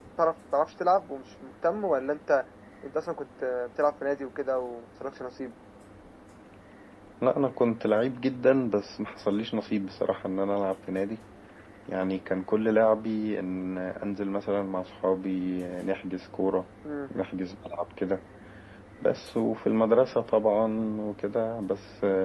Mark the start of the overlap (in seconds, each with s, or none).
none